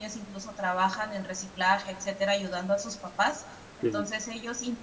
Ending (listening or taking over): listening